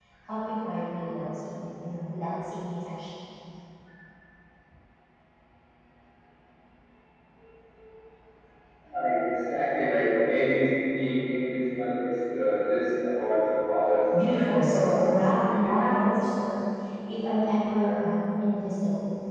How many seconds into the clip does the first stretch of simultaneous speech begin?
14.1 s

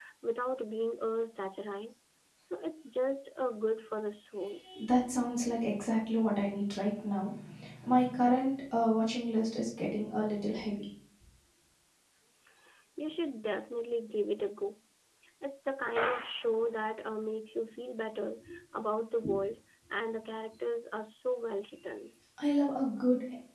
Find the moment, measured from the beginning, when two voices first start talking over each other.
none

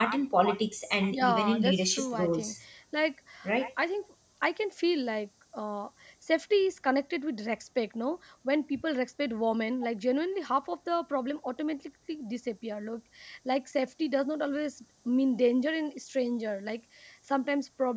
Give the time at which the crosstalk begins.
1.1 s

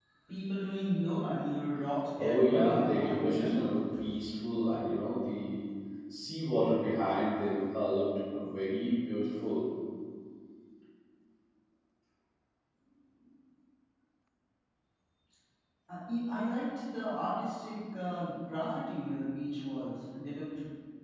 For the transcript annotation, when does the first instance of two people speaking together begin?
2.2 s

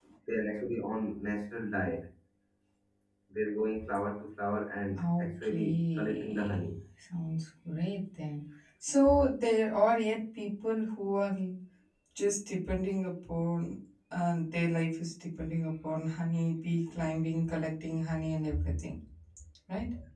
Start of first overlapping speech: 5.0 s

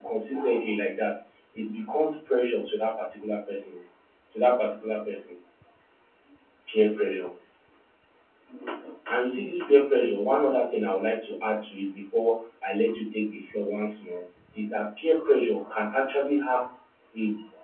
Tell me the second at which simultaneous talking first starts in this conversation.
none

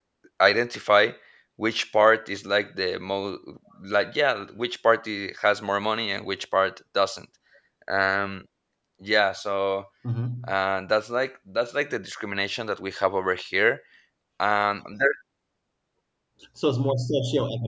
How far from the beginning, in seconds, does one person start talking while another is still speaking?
none

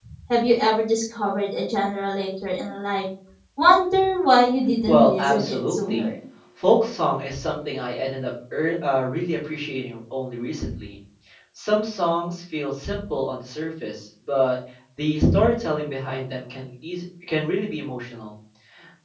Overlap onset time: 4.9 s

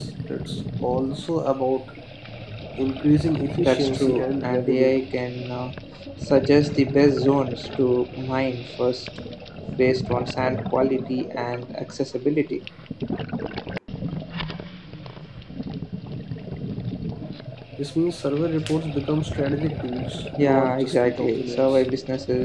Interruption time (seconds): 3.6 s

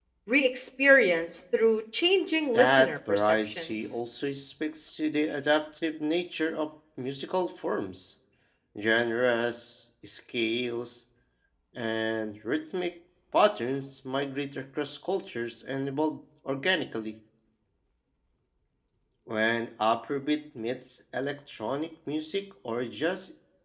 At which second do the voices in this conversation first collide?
2.5 s

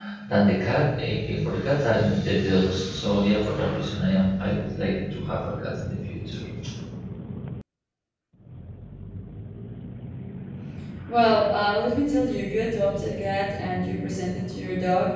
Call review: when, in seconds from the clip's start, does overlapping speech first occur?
none

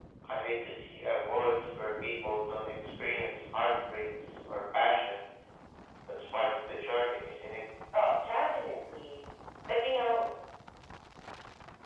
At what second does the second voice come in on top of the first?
none

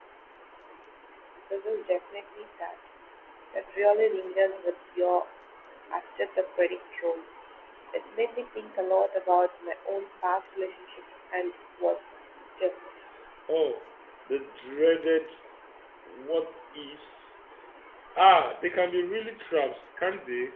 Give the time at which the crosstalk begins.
none

